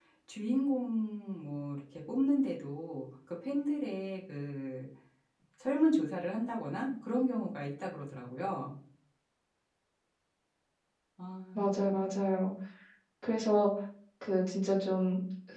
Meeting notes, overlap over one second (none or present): none